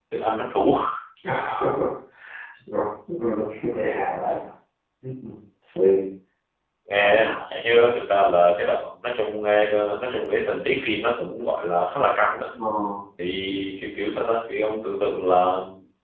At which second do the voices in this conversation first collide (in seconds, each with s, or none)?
none